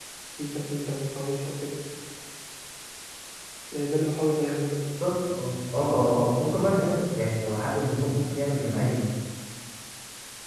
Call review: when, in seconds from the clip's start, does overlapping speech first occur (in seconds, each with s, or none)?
none